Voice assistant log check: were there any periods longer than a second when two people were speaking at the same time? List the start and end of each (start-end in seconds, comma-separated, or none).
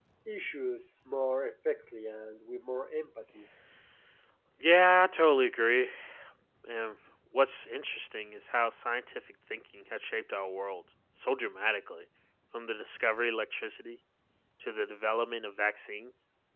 none